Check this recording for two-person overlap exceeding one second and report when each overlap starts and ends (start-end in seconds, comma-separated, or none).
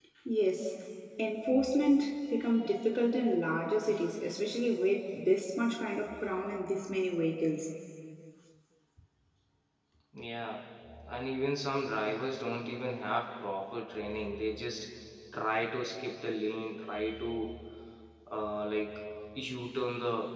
none